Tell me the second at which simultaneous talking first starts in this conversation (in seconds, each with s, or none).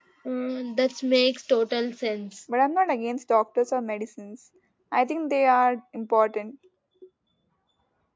none